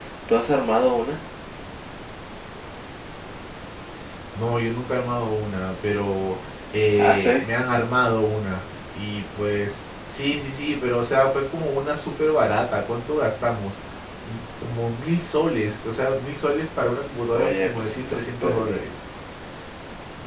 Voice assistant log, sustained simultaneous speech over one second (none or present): present